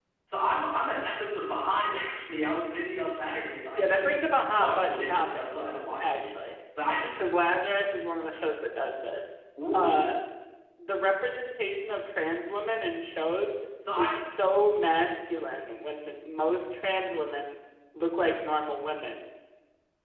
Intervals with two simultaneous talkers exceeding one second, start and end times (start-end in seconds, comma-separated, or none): 3.8-6.3